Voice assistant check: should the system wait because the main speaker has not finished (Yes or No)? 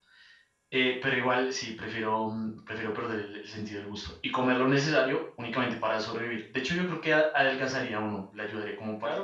No